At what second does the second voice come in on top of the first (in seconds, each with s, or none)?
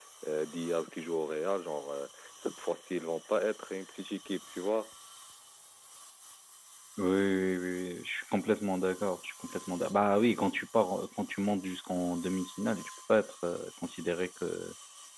none